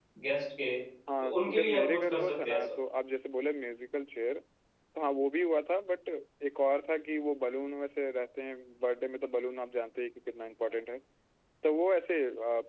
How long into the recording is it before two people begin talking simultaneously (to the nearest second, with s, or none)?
1 s